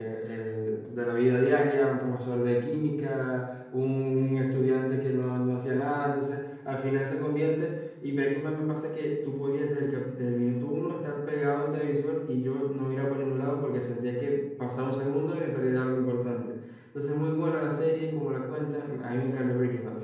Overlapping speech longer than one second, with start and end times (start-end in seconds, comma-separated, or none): none